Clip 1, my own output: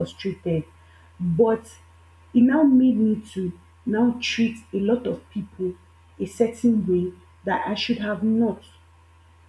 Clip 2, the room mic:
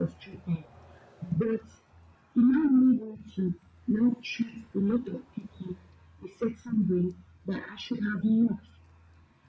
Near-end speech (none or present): none